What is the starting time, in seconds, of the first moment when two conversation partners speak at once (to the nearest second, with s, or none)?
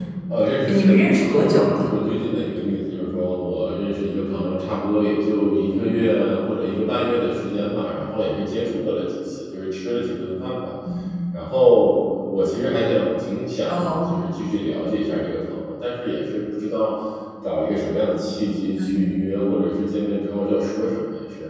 1 s